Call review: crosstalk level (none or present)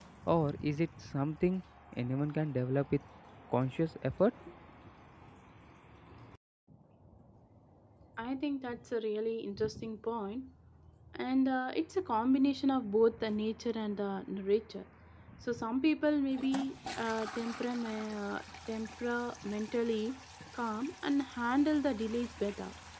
none